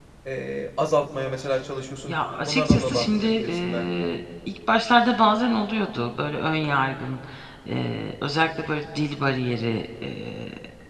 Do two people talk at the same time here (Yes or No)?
Yes